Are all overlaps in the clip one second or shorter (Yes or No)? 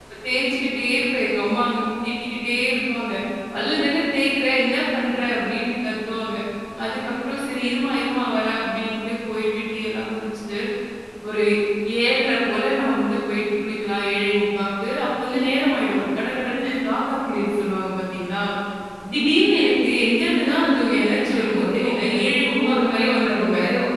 No